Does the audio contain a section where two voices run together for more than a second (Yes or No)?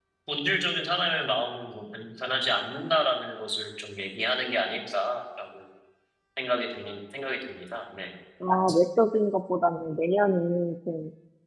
No